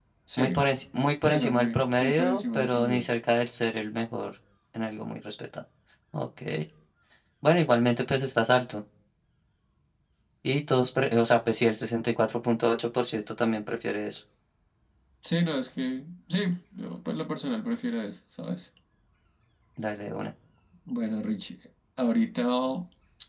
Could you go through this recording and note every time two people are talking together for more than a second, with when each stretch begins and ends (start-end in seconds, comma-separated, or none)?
1.2-3.1